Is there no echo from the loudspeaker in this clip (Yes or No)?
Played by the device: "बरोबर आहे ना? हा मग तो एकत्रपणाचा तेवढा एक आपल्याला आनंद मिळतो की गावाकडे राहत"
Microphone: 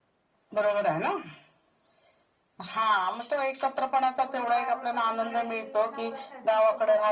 No